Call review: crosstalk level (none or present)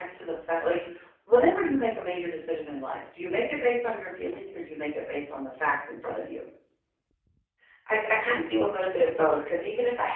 none